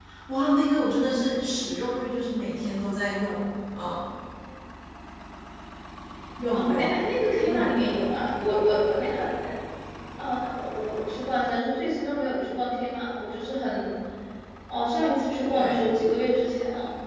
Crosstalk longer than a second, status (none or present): none